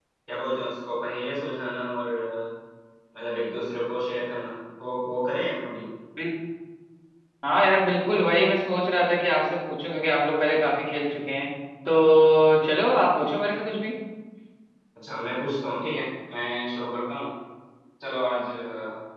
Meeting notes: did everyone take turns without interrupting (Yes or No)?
Yes